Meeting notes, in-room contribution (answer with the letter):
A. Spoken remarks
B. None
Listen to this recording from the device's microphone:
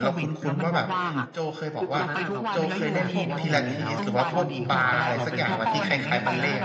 A